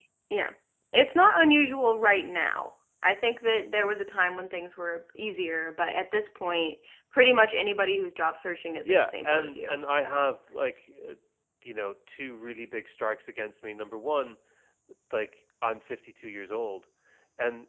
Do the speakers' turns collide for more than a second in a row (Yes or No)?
Yes